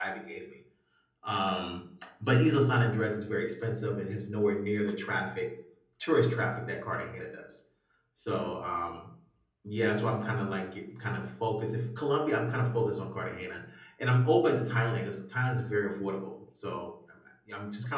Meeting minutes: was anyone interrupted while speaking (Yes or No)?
No